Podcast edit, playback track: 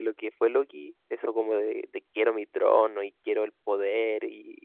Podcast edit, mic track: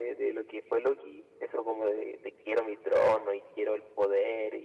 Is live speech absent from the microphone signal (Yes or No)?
Yes